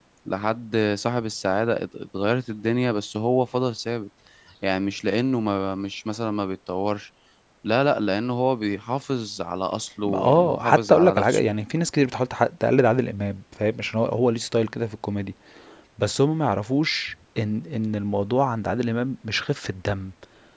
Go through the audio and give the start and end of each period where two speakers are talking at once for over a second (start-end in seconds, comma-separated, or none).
10.1-11.5